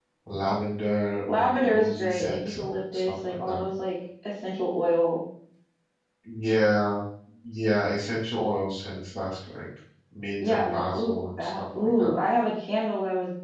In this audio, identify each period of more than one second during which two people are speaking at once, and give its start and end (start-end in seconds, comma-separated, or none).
1.3-3.6, 10.4-12.2